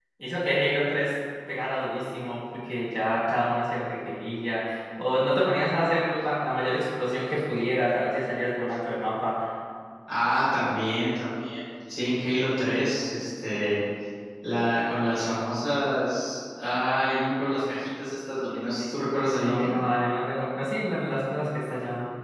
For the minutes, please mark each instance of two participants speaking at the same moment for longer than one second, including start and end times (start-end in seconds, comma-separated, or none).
none